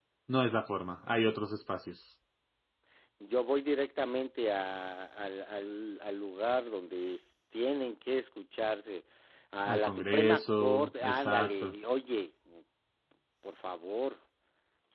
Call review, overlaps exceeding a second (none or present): present